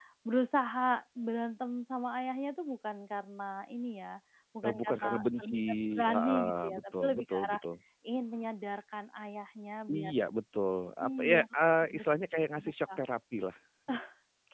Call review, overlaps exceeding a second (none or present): present